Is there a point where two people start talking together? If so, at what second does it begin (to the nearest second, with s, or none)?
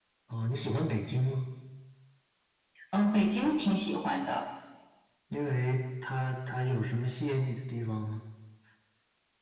none